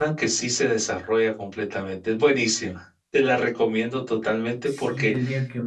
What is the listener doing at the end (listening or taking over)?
taking over